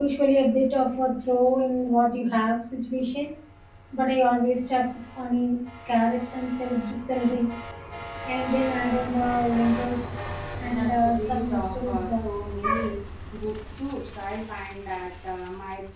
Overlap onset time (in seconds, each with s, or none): 10.6 s